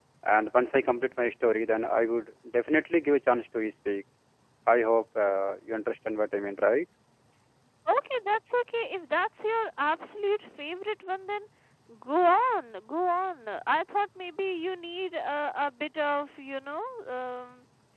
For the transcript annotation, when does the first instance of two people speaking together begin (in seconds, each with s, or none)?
none